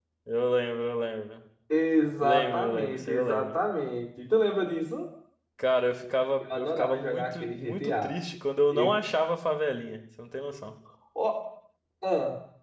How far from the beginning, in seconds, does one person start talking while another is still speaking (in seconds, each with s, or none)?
2.2 s